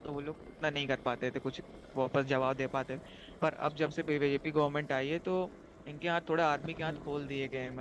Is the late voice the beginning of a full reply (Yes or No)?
No